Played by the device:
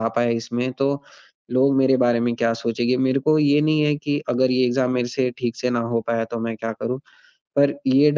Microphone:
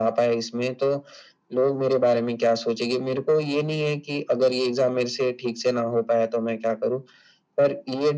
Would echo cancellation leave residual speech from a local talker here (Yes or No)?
No